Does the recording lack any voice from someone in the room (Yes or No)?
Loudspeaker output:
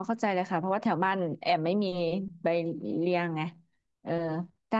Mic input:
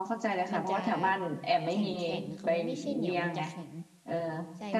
No